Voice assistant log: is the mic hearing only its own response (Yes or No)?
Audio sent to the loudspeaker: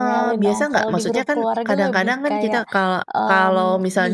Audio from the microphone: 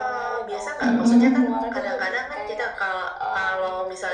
No